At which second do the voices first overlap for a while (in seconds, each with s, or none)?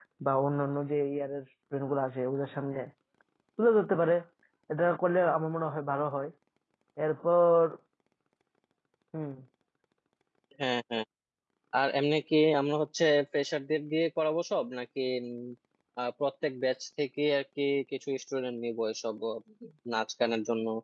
none